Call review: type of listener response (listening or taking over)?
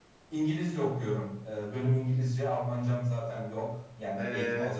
taking over